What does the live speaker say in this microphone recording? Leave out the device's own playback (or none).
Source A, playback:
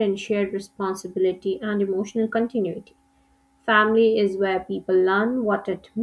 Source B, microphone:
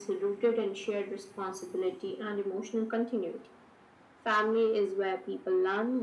none